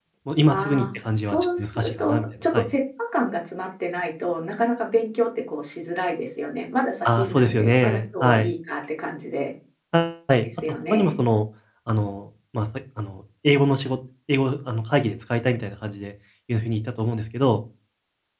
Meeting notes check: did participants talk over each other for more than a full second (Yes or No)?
Yes